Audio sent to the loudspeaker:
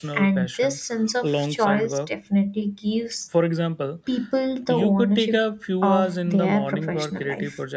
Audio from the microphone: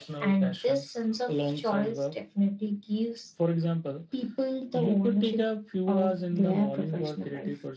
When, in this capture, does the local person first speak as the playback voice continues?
none

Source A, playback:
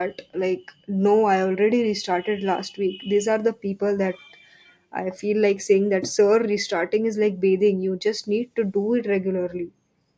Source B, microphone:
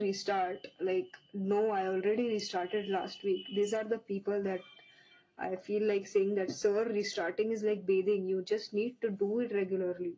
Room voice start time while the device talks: none

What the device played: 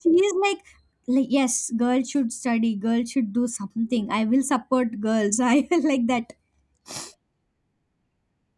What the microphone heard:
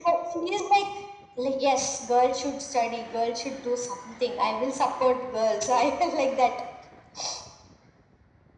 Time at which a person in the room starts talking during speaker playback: none

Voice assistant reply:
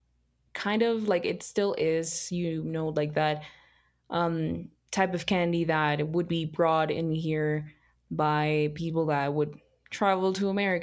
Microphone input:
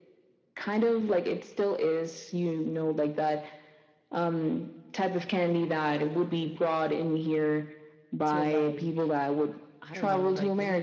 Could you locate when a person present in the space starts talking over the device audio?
8.2 s

